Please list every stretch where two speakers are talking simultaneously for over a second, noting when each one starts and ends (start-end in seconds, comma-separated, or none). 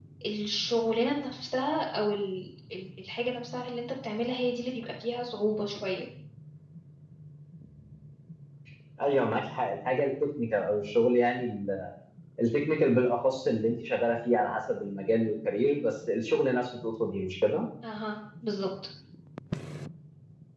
none